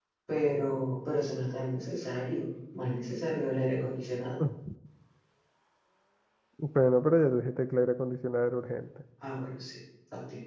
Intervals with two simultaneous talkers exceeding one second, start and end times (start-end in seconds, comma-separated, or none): none